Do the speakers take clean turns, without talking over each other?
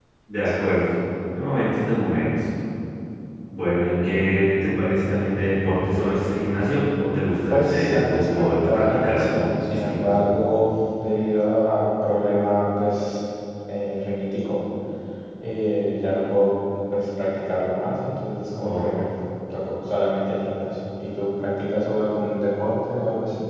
No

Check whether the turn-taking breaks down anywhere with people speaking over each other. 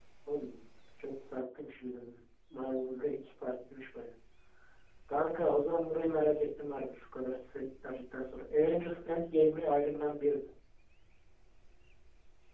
No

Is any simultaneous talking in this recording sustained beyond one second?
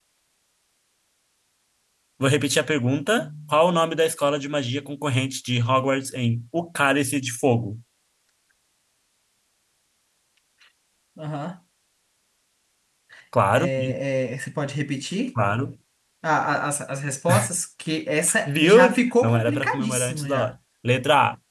Yes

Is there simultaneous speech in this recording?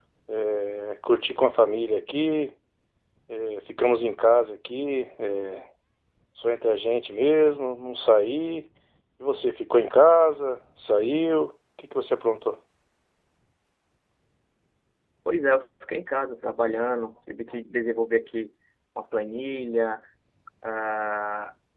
No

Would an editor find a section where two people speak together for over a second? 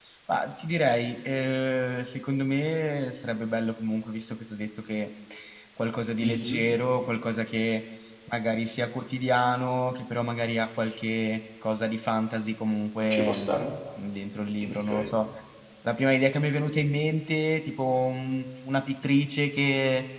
No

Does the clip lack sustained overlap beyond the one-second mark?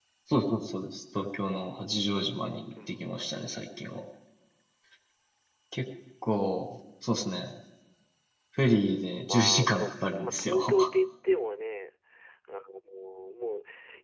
No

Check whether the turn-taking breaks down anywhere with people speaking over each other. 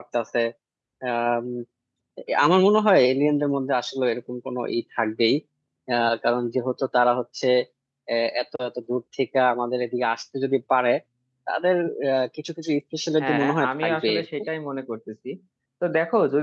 Yes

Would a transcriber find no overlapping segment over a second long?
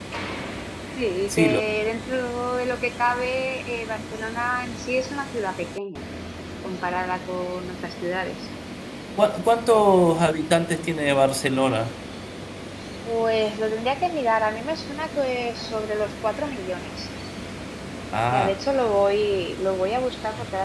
Yes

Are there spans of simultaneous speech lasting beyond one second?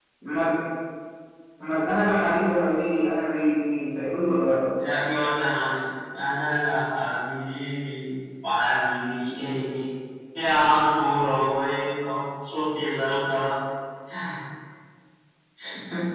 No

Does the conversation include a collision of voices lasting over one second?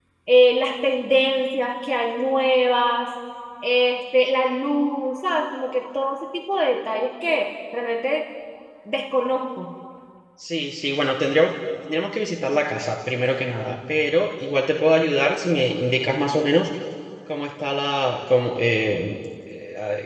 No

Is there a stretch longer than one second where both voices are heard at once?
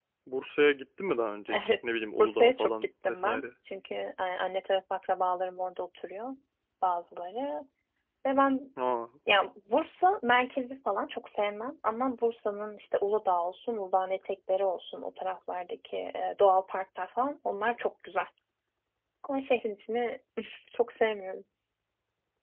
Yes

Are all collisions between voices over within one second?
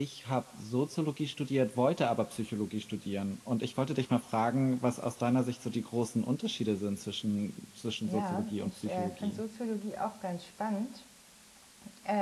No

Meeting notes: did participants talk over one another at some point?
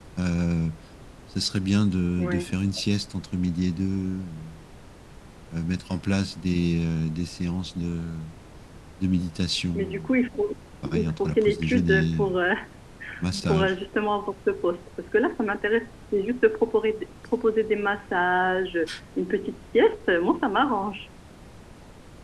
Yes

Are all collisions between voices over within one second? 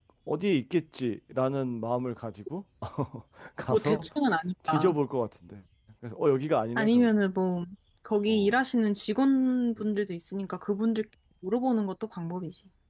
Yes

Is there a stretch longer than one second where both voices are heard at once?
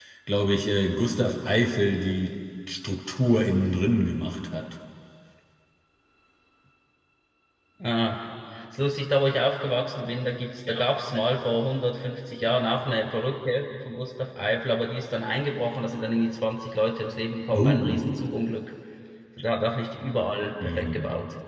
No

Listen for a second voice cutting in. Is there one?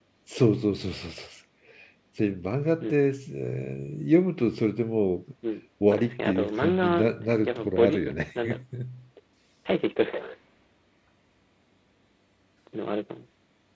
Yes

